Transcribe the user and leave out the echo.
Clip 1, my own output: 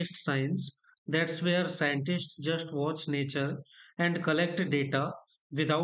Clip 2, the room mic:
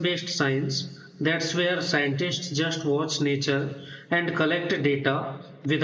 none

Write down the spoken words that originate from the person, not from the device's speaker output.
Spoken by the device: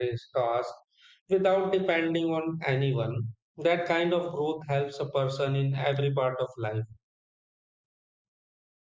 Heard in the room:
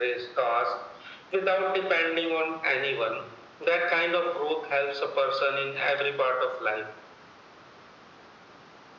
none

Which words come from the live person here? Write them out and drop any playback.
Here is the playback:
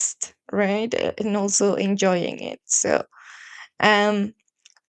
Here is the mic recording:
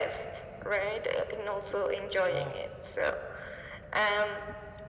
Wow.

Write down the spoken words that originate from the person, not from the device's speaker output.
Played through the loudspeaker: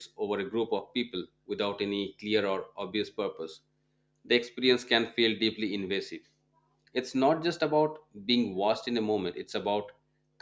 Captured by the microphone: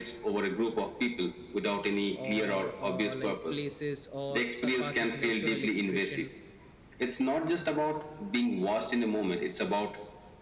or uh, like places or surpasses natural expression

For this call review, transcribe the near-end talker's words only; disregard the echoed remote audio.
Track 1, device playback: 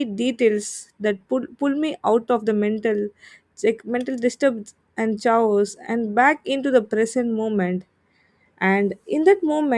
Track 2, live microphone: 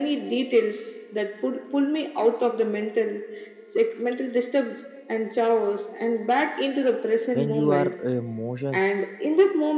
when you are uh, emotions

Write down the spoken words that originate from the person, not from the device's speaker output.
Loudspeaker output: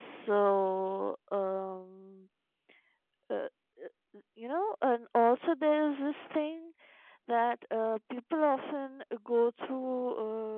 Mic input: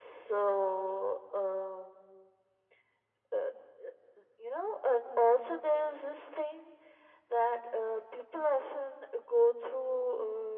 none

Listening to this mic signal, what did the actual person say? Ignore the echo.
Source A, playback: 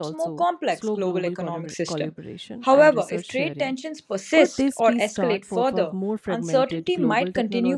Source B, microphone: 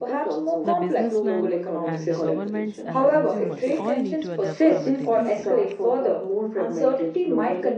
The businessman and the governments and the consumers all need to adapt simultaneously.

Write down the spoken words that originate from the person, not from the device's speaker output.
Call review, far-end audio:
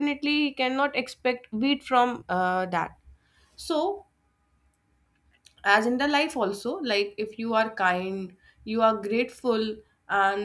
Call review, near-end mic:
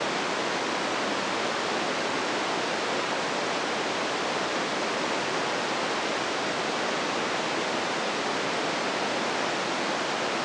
none

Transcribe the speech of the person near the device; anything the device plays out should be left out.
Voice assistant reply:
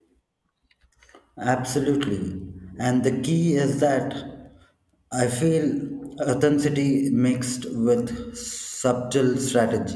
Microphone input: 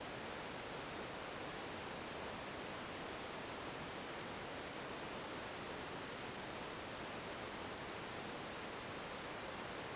none

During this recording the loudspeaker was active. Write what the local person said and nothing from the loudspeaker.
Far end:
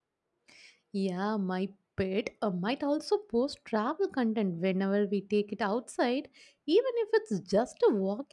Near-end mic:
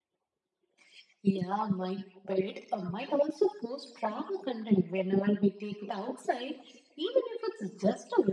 none

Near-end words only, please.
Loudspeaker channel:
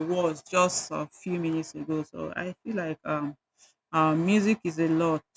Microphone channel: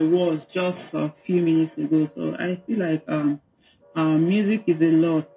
none

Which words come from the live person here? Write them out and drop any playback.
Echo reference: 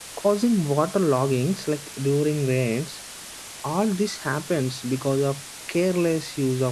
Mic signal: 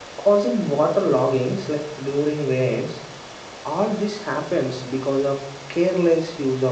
none

